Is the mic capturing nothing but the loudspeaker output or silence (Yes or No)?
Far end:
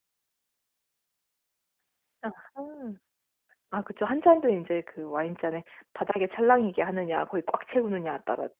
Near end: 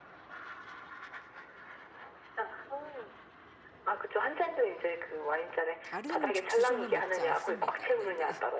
No